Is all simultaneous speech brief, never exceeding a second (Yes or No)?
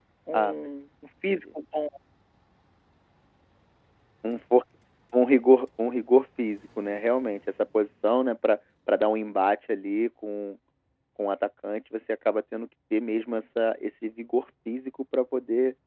Yes